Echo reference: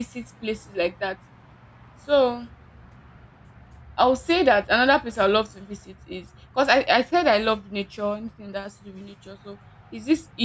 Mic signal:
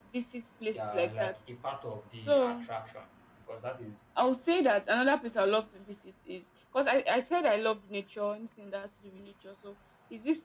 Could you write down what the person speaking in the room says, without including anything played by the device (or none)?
They are like a part of the attraction because that is